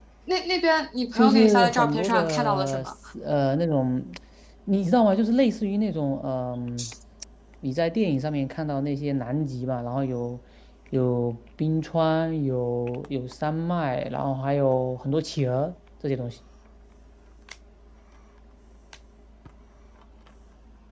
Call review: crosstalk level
present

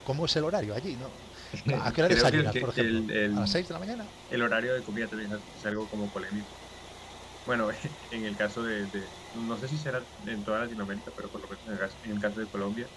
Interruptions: present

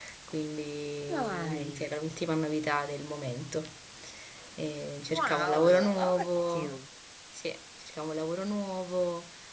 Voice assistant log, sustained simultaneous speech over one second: present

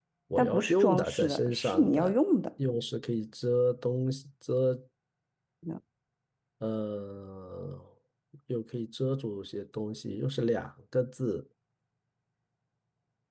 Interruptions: present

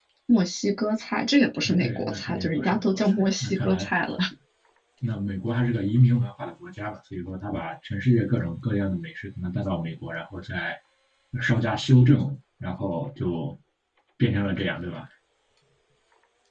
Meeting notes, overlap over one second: present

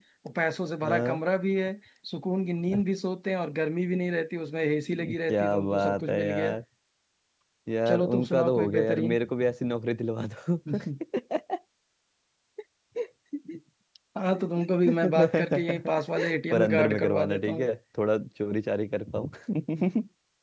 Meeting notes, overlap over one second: present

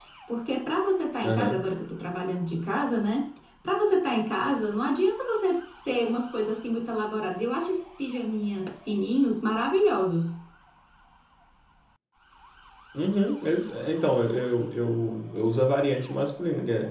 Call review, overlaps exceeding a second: none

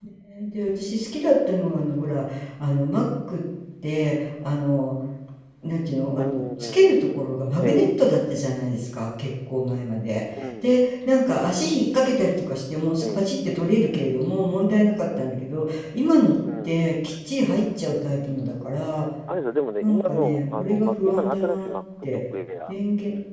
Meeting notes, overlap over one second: present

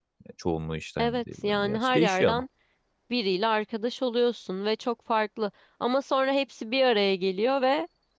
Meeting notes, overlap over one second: present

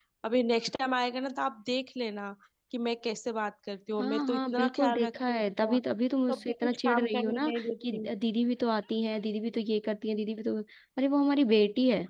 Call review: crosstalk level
present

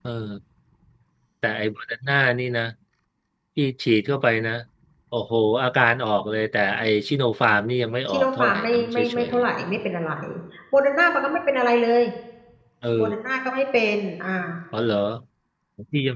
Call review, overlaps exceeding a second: present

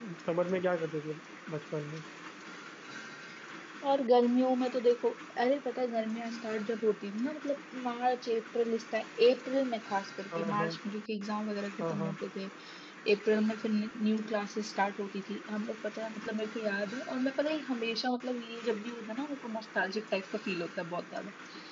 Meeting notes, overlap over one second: none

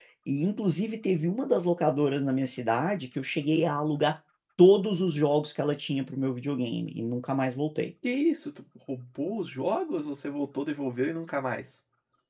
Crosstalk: none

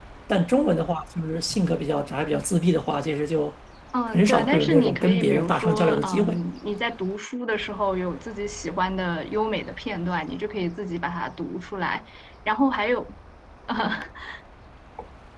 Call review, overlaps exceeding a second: present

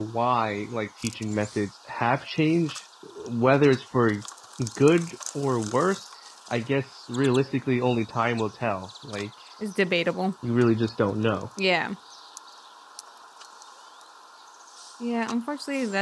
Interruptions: none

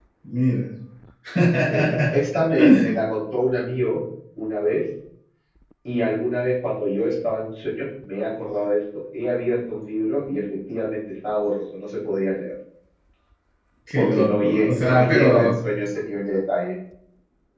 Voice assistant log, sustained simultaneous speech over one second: present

